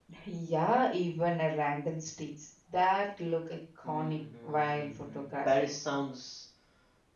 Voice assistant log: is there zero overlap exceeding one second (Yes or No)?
No